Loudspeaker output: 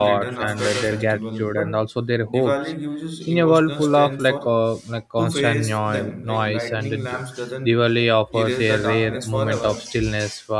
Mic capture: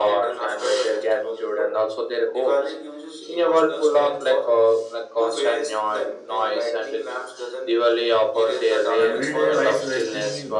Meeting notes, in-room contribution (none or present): present